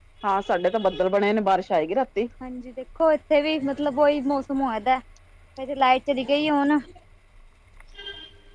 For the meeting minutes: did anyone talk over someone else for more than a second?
No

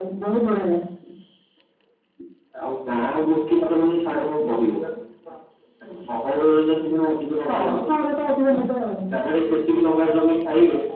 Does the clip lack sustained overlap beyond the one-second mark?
Yes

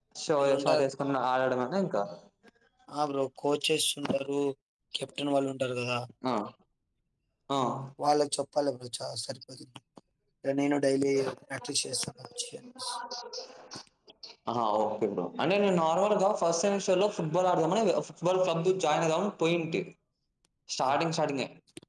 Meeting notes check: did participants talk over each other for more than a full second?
No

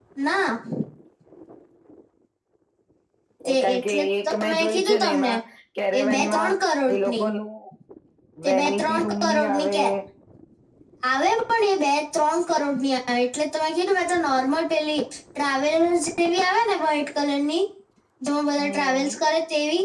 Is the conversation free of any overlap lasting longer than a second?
No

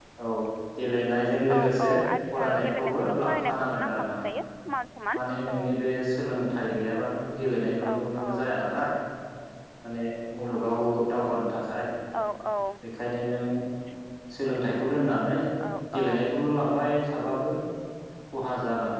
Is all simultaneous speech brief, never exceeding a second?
No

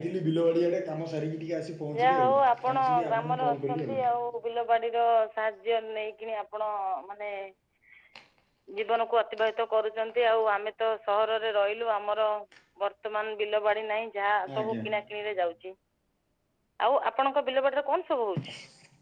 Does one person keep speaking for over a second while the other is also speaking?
Yes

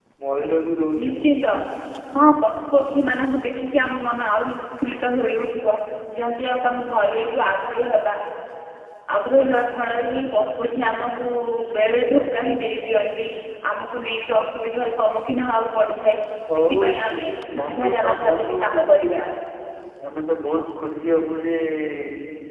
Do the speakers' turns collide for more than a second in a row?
Yes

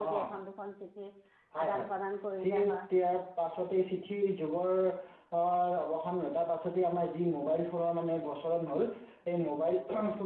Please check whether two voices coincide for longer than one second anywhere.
No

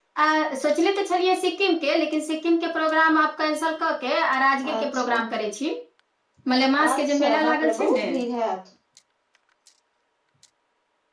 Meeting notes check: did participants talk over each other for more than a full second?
Yes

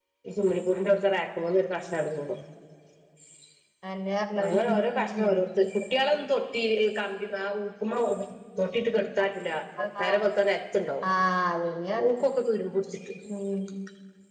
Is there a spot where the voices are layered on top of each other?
Yes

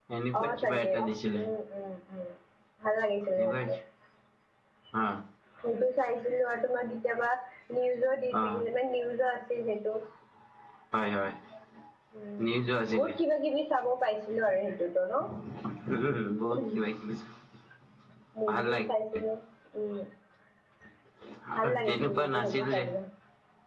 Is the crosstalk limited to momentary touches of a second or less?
No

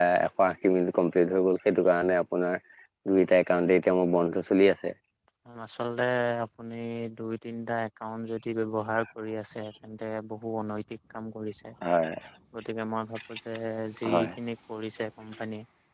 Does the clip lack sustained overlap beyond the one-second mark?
Yes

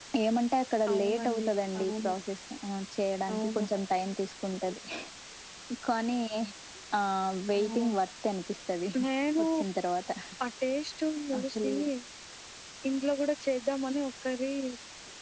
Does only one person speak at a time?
No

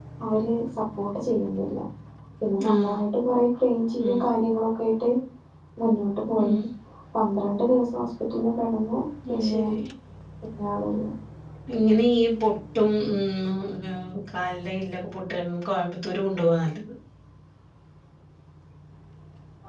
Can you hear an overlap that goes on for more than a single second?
No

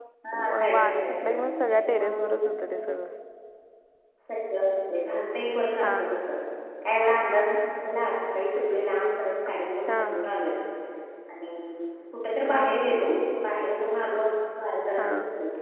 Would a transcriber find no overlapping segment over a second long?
No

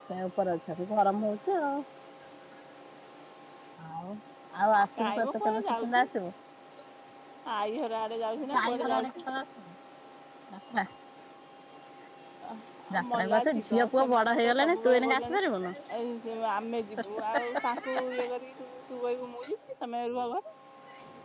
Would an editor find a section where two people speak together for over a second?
Yes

